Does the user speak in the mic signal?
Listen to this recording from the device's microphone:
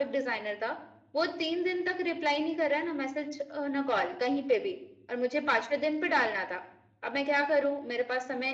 No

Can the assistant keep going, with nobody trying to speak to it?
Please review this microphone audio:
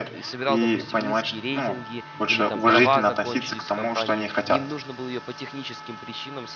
No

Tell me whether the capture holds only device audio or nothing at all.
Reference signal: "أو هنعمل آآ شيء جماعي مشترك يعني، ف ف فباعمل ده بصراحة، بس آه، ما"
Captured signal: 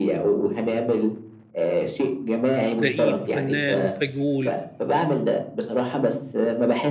No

